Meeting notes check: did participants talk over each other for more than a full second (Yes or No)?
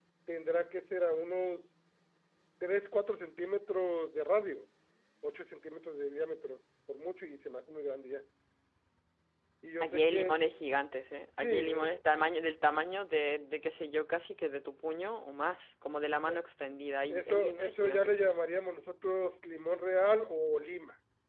Yes